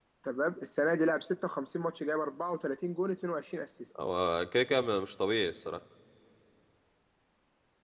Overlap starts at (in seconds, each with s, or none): none